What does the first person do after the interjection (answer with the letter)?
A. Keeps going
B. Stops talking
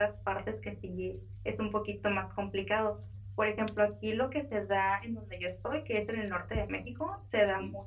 A